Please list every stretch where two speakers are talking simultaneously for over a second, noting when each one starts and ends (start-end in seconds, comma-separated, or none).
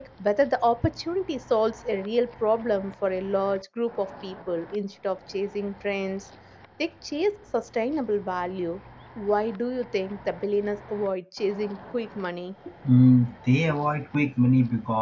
none